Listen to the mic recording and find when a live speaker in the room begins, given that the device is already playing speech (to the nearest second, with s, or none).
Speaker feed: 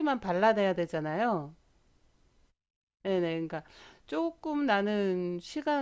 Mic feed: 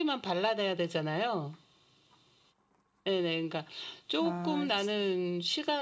4 s